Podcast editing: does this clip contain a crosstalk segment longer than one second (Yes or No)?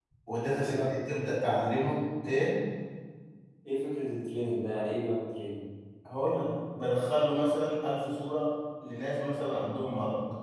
Yes